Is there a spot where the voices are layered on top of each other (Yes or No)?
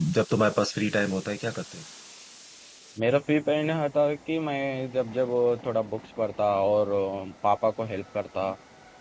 No